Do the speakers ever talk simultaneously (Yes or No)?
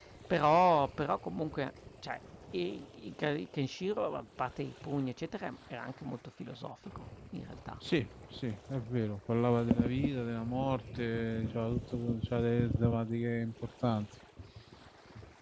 No